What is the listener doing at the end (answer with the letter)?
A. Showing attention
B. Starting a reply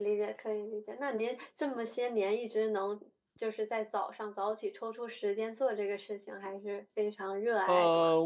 B